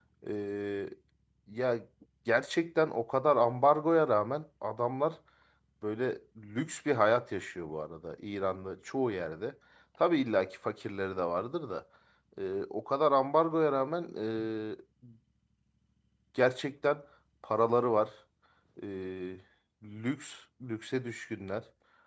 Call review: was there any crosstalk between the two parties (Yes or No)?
No